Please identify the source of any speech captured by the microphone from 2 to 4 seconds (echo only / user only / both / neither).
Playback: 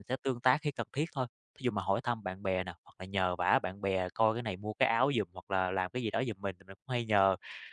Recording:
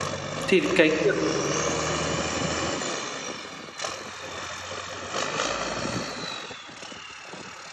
neither